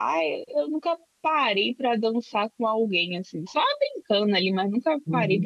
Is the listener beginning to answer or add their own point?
No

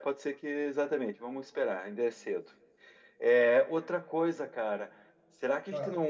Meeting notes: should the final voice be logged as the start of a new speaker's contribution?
No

